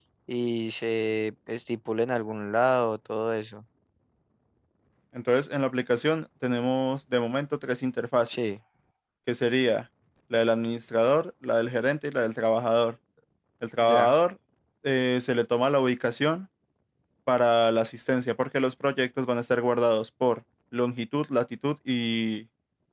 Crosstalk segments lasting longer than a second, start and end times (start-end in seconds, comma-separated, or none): none